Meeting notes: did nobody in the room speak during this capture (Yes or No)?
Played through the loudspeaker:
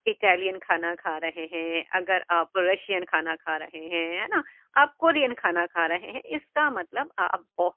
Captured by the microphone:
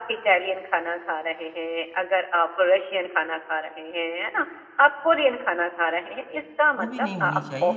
No